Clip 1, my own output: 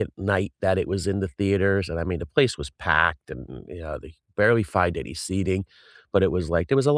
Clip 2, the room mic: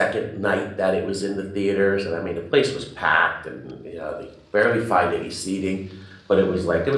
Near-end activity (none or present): none